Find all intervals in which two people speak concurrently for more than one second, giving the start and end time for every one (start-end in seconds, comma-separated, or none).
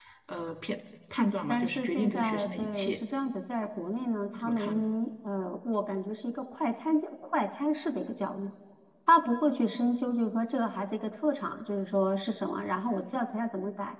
1.5-3.0